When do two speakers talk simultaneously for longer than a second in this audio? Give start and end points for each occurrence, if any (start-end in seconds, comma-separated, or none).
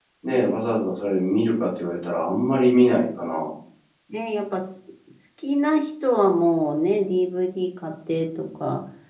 none